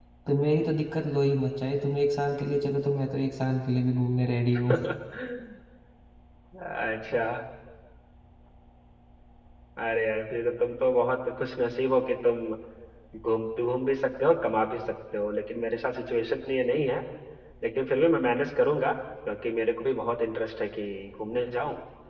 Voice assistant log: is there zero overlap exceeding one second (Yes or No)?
Yes